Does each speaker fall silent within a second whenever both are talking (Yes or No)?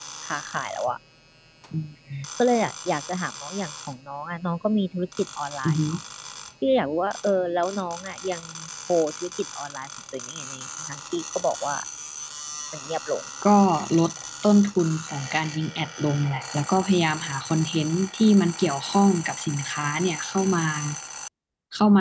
Yes